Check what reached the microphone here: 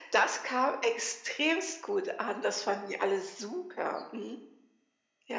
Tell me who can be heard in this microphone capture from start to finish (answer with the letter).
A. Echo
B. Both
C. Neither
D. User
A